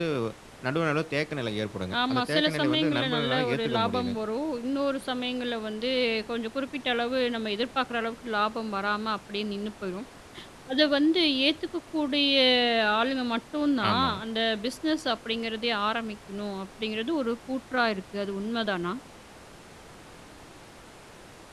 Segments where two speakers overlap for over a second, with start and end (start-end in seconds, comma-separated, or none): 2.1-4.1